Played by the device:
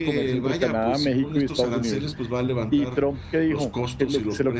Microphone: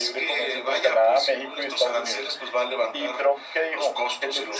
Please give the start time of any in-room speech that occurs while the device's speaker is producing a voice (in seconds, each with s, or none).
none